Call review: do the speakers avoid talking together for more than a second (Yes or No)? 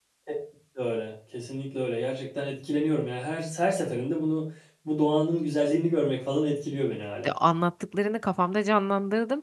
Yes